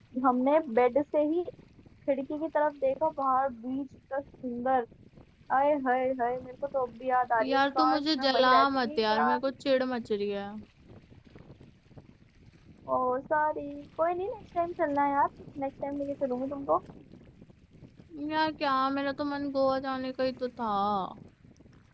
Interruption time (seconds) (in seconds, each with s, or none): 7.4 s